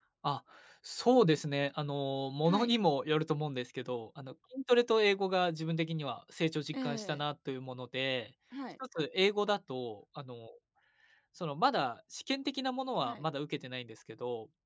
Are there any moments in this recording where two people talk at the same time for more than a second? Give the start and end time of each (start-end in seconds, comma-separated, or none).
none